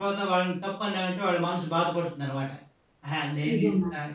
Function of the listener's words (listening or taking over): listening